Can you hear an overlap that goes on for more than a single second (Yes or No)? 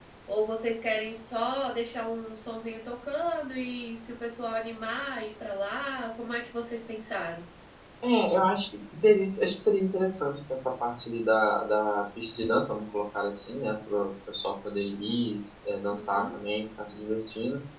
No